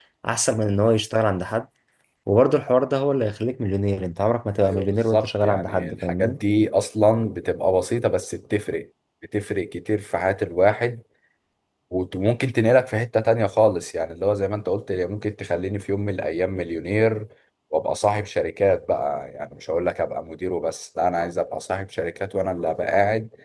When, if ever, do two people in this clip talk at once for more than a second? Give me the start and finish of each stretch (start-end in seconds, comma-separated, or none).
4.6-6.4